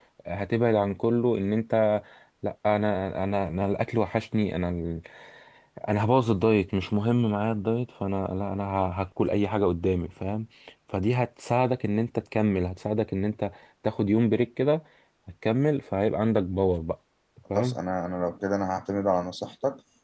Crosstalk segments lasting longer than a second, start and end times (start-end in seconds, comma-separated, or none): none